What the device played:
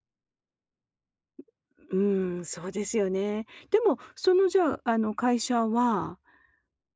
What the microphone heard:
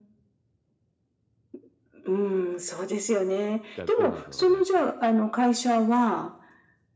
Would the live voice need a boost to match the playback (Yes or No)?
Yes